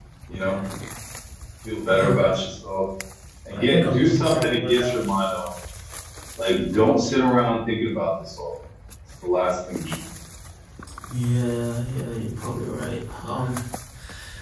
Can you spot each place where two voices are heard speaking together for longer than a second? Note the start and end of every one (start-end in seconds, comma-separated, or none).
3.6-5.1